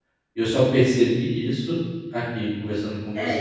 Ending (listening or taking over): taking over